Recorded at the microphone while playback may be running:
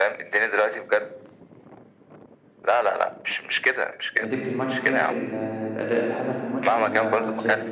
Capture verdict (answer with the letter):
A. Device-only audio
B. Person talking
B